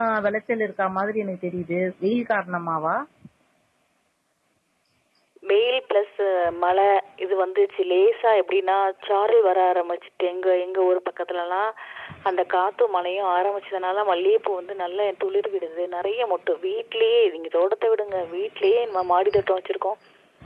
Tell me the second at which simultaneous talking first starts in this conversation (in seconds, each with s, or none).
none